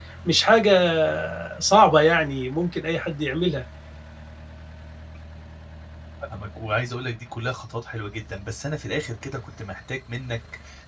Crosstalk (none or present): none